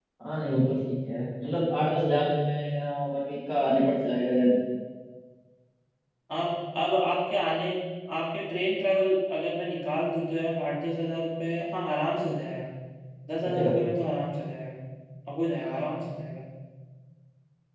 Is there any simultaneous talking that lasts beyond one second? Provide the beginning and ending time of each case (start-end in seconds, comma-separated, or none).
none